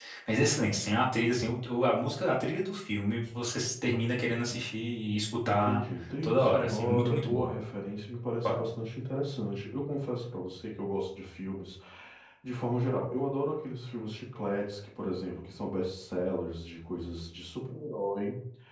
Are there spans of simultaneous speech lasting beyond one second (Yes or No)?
Yes